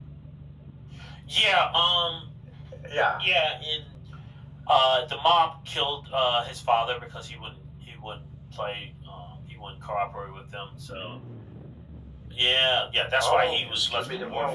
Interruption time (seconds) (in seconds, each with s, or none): 13.2 s